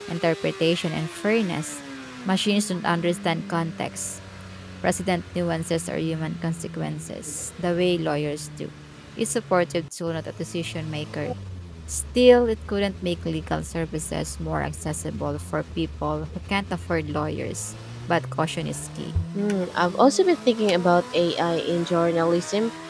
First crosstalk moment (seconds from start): none

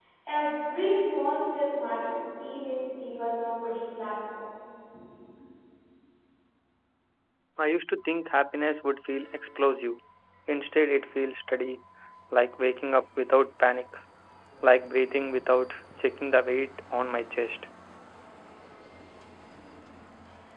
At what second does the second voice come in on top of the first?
none

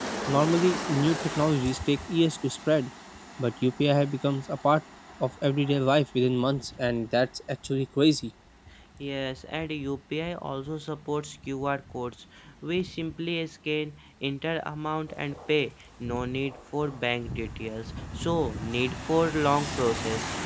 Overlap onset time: none

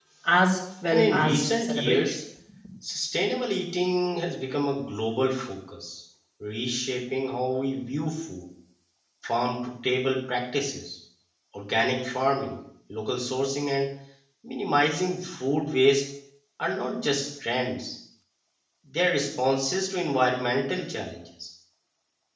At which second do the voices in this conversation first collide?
0.9 s

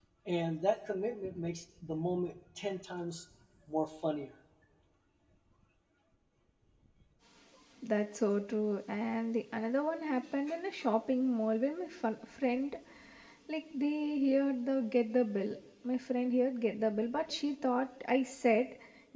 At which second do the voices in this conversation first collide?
none

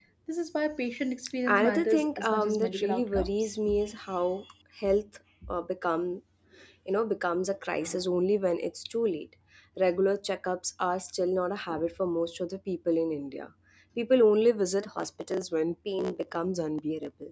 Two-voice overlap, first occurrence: 1.5 s

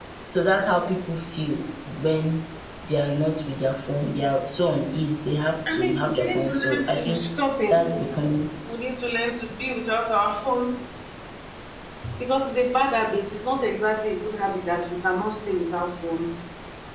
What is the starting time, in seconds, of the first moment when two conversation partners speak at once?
5.7 s

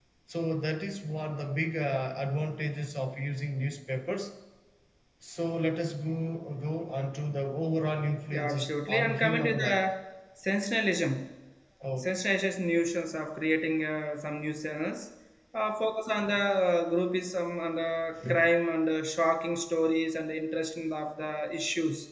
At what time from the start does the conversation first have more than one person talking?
8.3 s

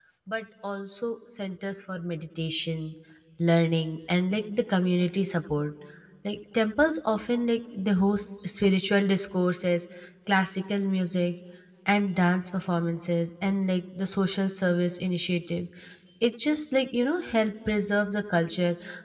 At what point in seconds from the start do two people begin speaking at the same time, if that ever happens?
none

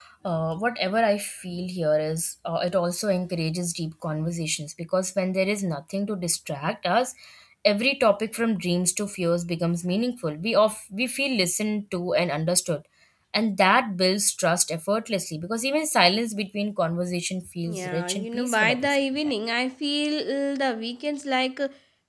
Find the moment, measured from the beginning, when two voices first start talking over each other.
17.6 s

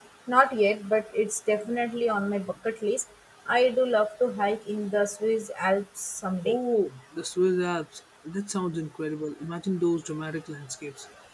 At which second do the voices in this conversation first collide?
none

